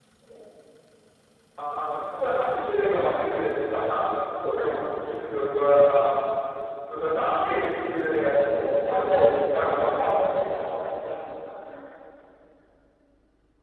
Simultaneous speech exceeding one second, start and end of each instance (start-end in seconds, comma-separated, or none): 8.5-10.1